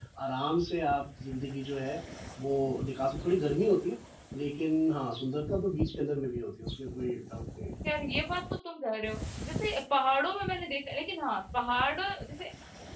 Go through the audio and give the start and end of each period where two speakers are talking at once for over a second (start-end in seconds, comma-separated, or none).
none